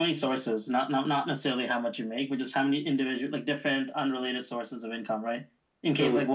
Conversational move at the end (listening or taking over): listening